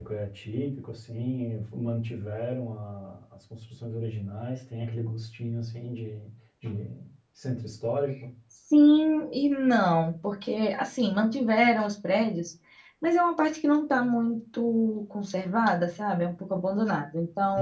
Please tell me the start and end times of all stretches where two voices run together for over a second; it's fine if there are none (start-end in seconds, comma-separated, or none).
none